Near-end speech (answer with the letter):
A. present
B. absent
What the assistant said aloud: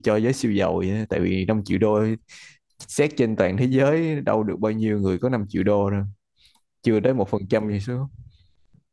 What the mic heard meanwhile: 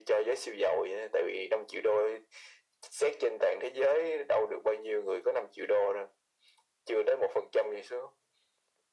B